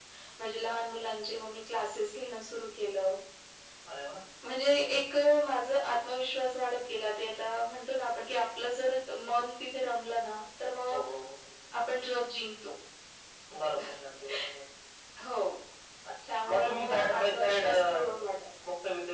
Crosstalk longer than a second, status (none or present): present